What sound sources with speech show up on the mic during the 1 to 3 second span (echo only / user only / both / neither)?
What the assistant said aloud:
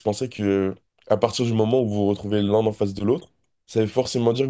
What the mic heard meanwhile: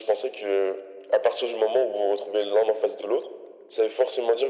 echo only